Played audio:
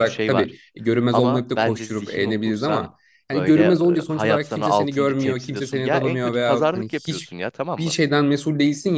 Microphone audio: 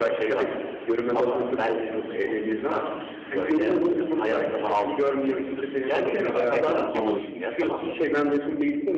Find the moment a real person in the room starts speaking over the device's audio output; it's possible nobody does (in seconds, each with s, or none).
5.8 s